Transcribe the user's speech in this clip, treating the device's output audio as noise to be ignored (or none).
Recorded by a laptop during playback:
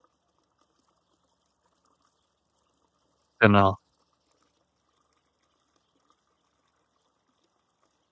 genau.